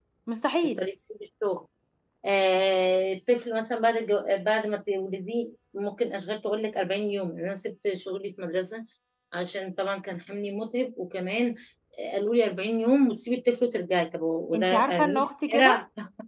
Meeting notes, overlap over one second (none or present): present